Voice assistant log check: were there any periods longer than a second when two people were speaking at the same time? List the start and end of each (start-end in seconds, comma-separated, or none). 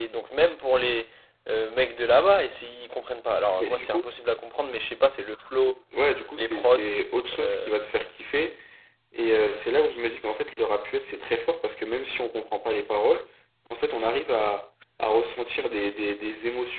none